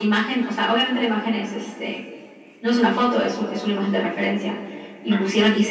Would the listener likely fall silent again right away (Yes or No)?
Yes